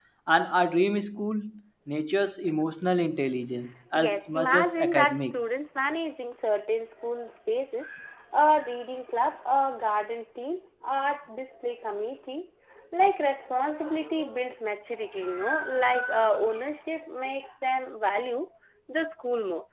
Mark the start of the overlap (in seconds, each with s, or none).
3.9 s